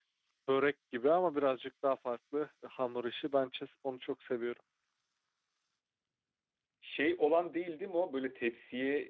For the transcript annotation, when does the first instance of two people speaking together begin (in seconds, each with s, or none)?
none